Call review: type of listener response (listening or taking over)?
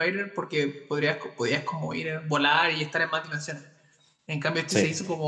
listening